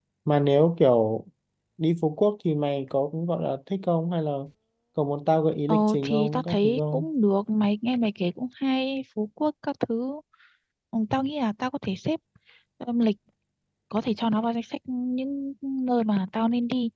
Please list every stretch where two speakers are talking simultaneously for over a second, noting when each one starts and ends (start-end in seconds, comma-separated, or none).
5.7-7.1